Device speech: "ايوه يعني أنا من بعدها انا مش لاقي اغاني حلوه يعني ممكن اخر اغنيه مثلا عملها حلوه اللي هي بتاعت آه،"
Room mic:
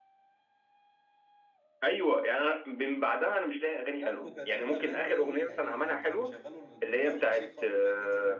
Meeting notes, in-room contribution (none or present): present